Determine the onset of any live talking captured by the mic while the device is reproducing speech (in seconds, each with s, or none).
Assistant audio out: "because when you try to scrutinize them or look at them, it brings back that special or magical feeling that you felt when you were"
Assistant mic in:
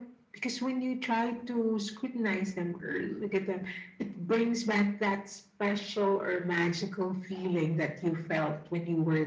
none